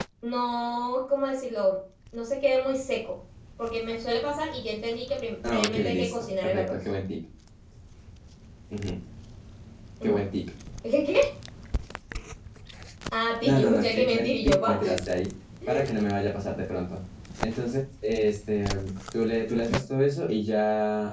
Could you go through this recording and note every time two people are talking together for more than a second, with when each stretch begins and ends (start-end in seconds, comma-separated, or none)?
5.5-6.8, 13.4-14.8